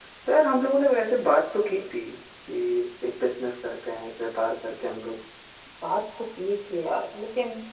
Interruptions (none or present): none